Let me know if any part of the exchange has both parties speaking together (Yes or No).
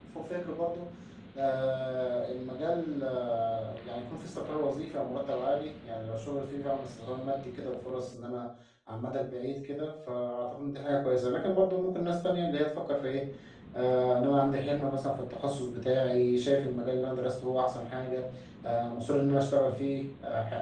No